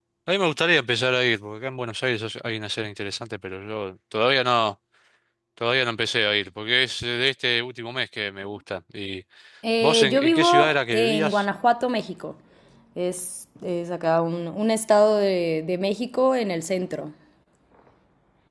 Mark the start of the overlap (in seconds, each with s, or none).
9.8 s